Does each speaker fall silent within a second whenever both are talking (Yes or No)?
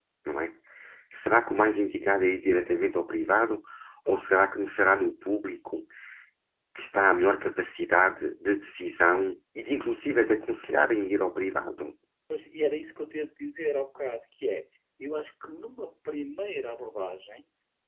Yes